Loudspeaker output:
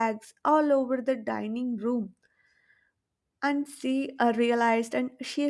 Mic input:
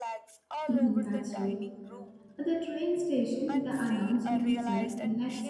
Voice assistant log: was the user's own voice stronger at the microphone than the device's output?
Yes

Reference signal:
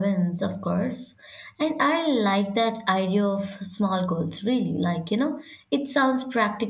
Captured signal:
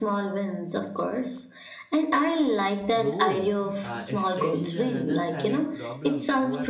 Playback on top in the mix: Yes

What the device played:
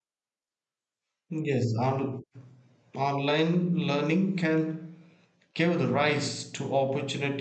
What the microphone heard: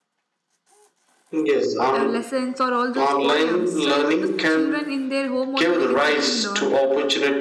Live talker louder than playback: No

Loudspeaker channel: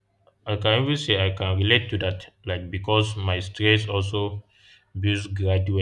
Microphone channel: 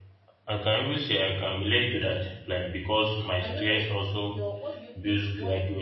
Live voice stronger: No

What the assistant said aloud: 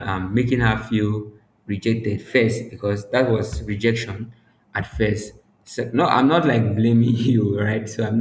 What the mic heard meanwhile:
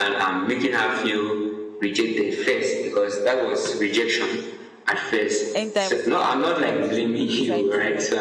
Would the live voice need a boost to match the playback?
Yes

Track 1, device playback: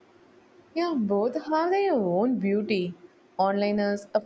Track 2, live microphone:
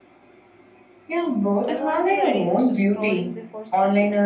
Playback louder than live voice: Yes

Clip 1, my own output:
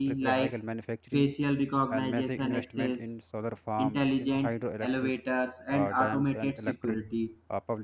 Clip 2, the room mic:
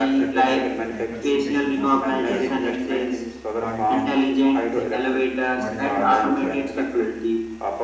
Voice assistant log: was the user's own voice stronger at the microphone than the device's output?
No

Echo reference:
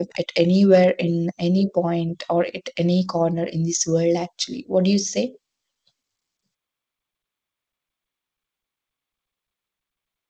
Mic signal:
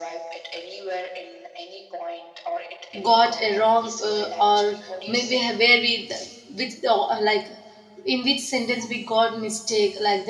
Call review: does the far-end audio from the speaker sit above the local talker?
No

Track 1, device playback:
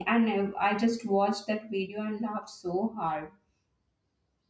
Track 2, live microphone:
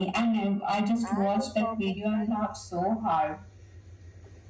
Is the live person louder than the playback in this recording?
No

